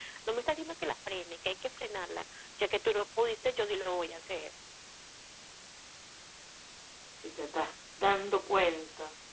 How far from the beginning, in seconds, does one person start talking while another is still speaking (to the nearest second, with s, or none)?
none